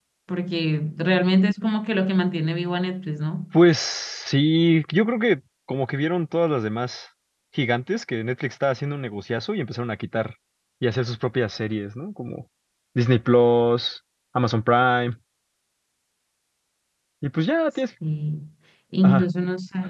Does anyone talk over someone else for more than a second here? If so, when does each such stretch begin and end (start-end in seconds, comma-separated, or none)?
none